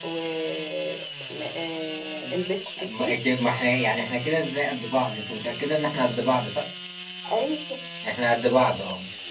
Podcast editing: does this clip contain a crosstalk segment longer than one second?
No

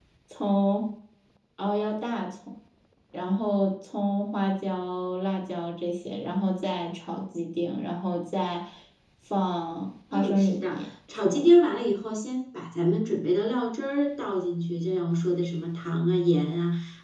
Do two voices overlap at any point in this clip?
Yes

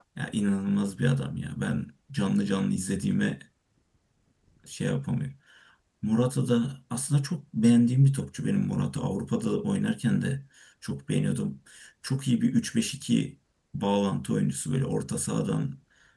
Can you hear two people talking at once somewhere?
No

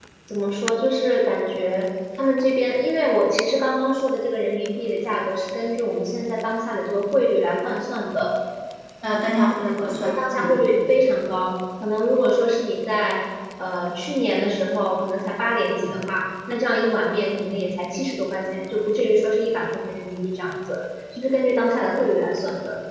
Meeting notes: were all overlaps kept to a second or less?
Yes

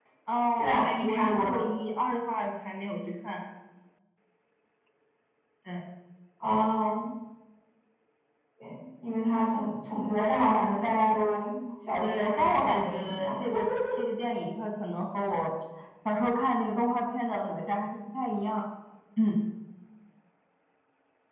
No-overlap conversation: No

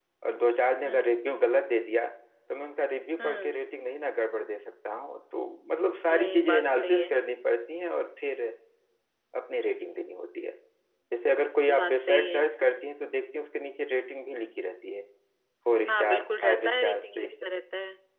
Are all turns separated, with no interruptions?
No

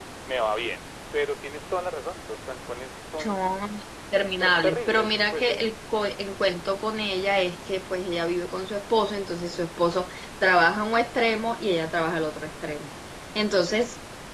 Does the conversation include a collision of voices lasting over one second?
Yes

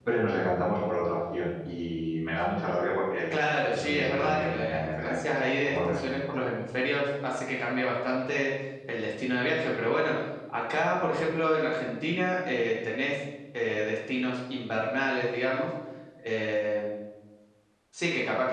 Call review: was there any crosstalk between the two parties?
Yes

